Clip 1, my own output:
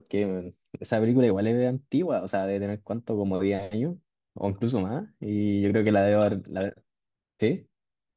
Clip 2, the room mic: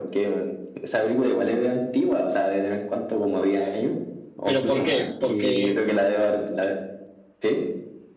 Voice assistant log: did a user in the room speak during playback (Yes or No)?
Yes